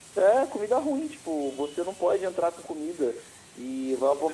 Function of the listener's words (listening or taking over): taking over